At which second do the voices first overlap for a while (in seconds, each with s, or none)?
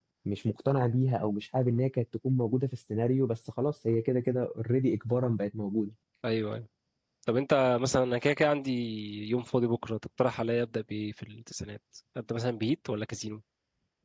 none